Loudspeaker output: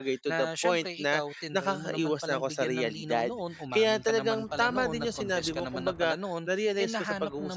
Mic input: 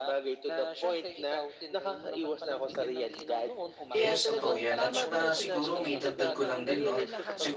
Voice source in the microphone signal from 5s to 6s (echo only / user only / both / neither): both